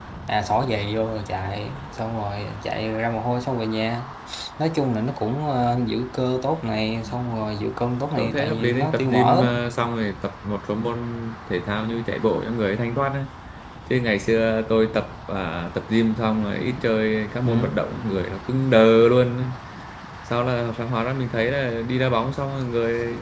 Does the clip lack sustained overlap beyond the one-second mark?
No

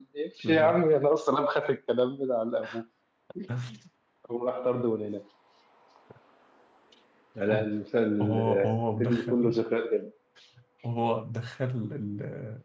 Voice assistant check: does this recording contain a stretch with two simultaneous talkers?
Yes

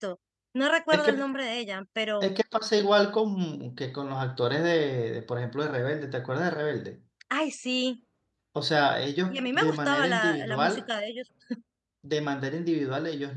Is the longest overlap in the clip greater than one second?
Yes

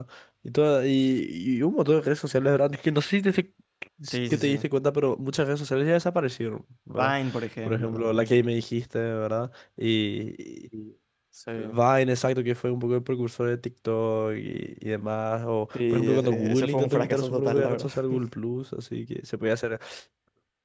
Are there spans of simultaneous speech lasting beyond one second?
Yes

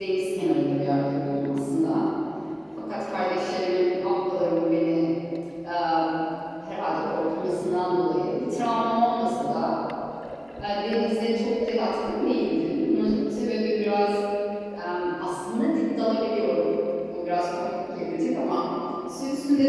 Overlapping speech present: No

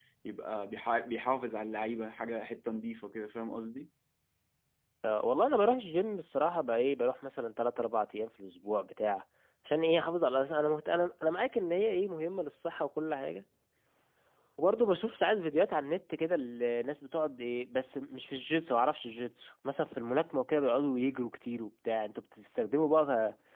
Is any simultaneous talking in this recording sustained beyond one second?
No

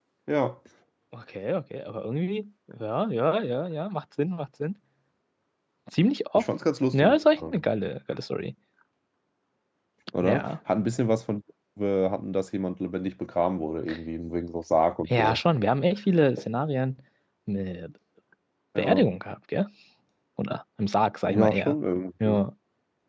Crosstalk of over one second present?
No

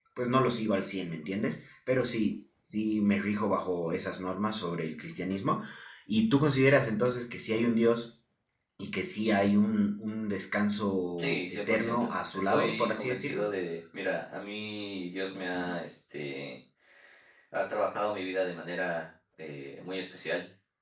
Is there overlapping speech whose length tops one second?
Yes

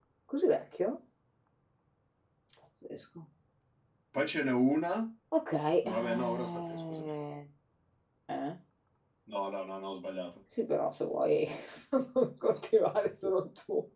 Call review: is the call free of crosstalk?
No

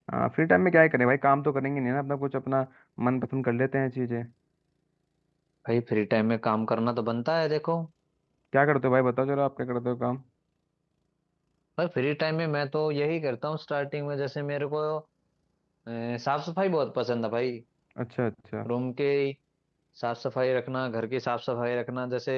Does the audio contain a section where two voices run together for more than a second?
No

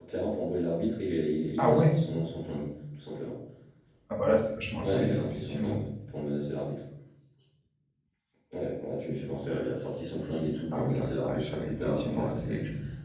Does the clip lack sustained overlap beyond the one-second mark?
No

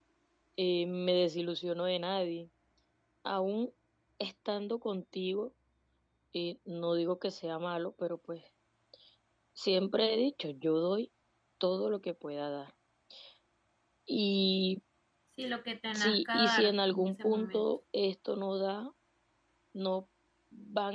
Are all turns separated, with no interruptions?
No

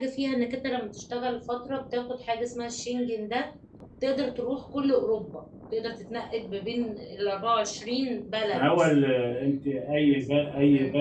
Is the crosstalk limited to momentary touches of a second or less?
Yes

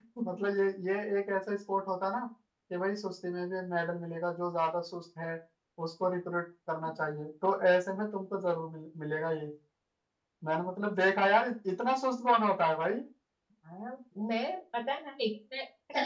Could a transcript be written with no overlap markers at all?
Yes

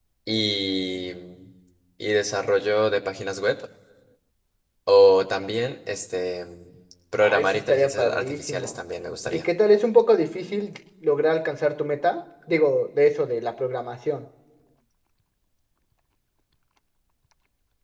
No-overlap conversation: No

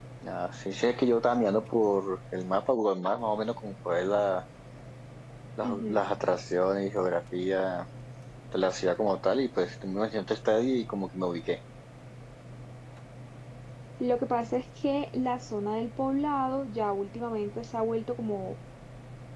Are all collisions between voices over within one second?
Yes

